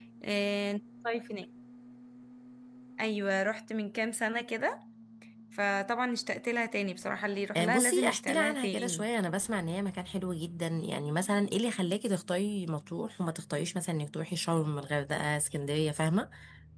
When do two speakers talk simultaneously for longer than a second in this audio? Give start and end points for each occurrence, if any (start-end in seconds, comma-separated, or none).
7.5-9.1